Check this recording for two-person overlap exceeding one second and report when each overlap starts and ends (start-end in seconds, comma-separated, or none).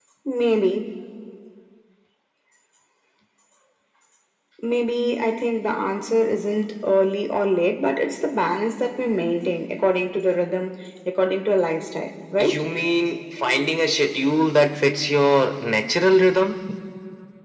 none